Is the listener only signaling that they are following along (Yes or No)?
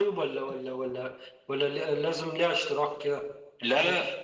Yes